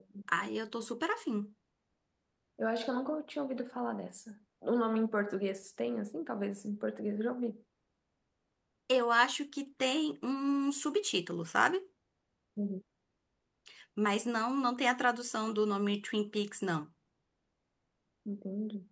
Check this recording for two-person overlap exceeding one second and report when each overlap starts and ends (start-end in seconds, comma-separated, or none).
none